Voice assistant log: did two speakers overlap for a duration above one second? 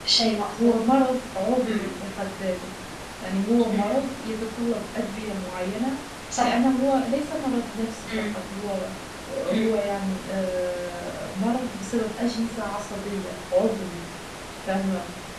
No

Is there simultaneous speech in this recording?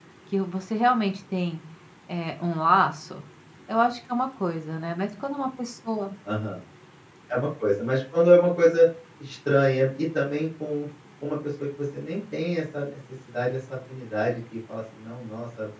No

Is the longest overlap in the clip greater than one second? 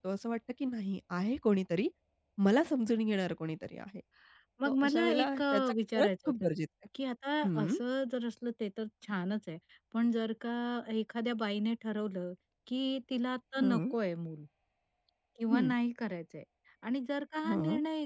Yes, from 4.6 s

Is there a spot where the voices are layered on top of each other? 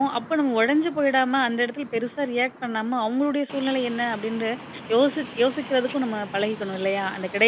No

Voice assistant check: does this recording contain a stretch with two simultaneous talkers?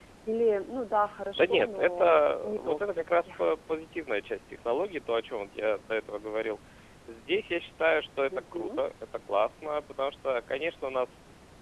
Yes, from 1.4 s

